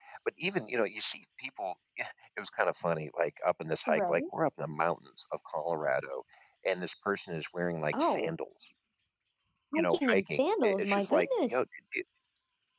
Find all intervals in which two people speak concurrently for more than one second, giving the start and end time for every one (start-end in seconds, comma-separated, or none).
9.8-11.6